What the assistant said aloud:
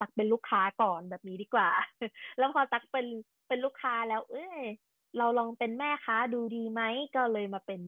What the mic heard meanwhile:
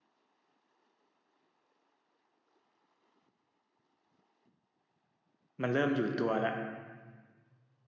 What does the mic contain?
user only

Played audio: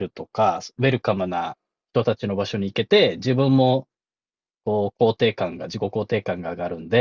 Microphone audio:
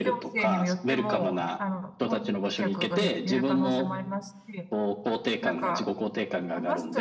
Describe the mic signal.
both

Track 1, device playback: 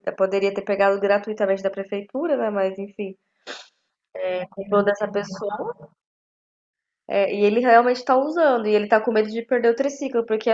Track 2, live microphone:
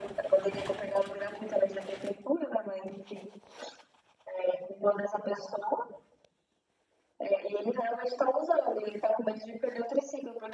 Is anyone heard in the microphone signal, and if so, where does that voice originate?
echo only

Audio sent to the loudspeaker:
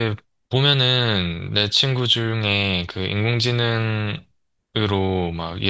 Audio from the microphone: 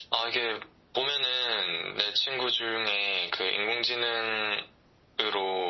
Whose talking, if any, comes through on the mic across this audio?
echo only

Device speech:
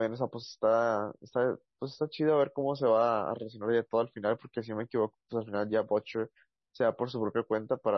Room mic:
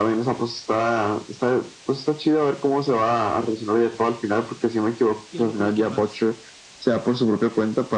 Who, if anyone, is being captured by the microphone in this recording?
both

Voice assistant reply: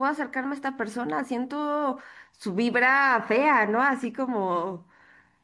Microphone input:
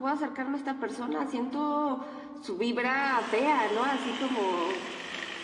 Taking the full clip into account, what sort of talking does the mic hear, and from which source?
echo only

